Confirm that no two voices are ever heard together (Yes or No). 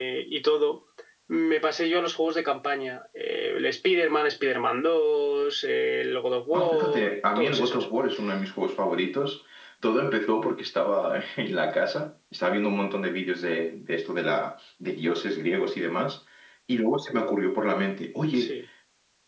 No